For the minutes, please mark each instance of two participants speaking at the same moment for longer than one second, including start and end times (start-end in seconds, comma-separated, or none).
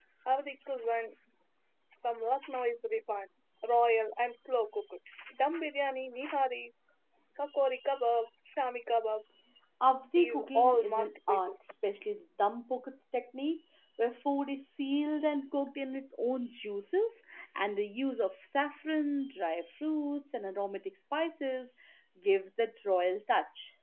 10.2-11.5